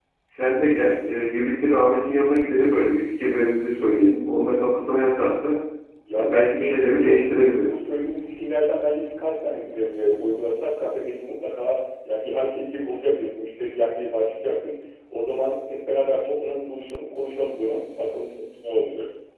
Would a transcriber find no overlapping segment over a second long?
No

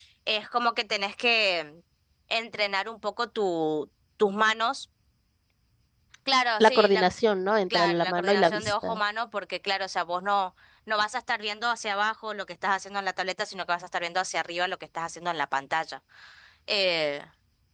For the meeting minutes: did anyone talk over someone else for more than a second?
Yes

